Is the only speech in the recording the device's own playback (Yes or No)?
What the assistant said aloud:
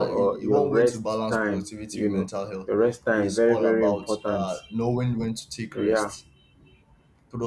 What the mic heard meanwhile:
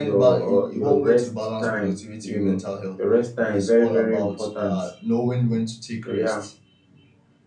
Yes